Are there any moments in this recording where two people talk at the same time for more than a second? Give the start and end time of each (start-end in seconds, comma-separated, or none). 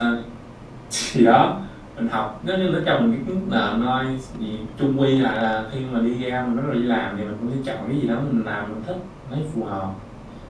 none